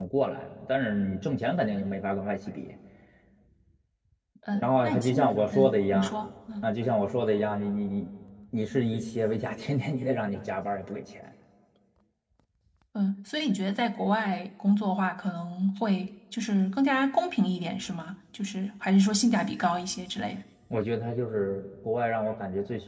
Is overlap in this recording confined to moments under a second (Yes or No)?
No